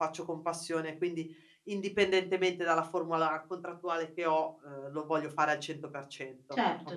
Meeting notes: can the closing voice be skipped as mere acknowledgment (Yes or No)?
No